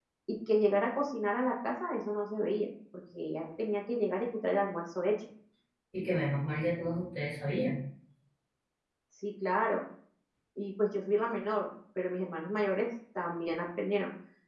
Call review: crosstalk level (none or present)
none